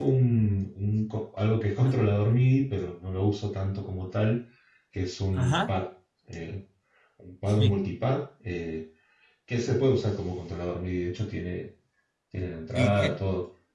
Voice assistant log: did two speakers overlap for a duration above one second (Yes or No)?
No